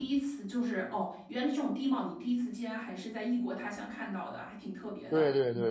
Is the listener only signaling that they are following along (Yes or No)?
No